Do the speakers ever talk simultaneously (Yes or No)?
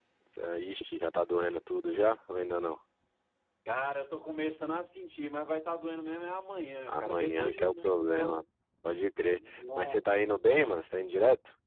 Yes